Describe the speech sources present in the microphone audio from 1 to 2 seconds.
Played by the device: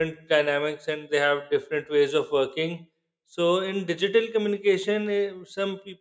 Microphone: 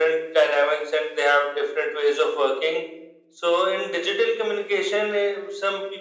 echo only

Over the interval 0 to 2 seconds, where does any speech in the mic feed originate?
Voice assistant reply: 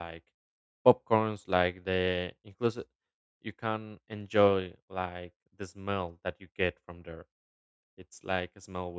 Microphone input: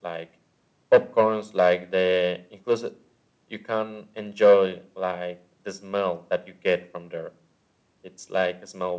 echo only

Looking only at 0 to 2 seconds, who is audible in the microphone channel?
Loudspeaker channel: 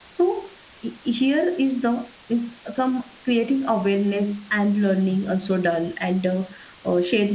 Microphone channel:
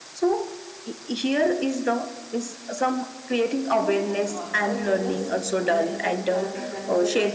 echo only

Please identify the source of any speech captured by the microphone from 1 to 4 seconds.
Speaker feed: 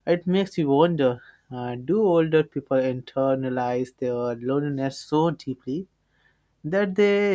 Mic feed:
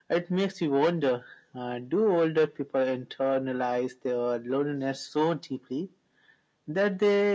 echo only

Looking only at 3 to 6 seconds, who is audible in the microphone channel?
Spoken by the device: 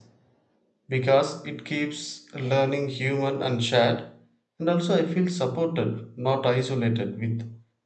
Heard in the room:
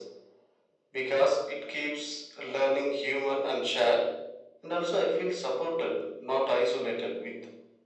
echo only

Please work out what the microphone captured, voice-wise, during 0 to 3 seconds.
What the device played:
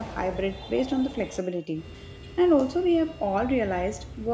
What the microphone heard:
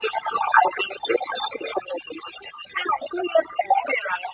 echo only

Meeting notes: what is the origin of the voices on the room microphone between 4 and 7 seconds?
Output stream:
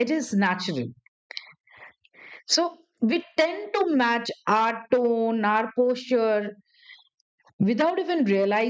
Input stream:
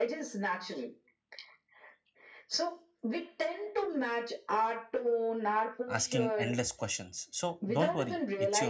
both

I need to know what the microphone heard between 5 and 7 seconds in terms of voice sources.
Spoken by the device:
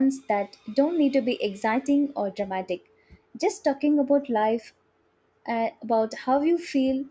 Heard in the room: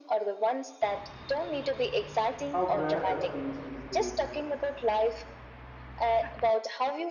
echo only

